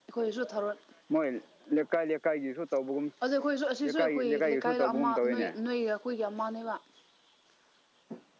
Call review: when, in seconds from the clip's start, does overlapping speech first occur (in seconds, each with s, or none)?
3.8 s